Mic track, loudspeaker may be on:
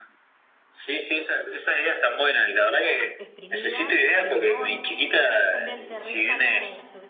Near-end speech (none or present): present